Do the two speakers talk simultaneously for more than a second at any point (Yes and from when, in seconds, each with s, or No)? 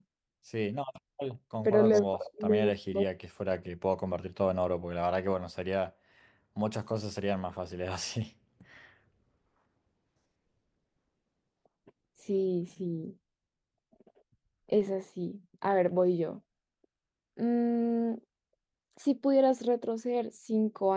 Yes, from 1.6 s